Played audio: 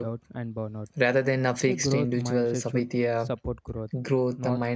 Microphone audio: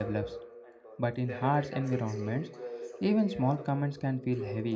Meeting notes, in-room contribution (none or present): present